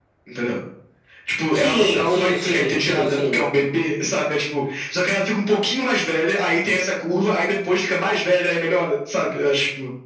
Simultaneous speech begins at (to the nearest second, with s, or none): 2 s